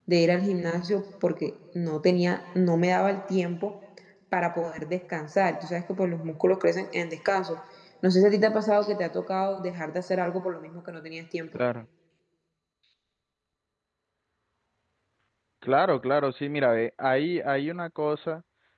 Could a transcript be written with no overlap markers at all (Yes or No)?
Yes